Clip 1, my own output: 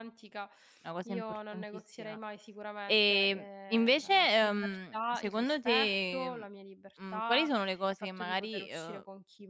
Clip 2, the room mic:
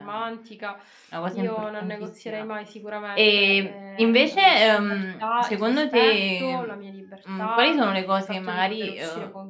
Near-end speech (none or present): none